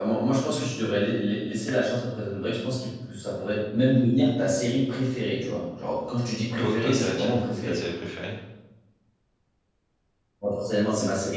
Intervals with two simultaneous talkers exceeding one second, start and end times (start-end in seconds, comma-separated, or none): 6.6-7.8